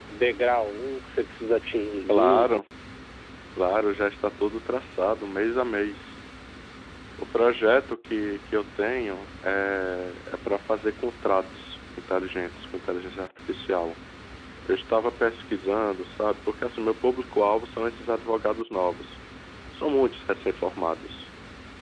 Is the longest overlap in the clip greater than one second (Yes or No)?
No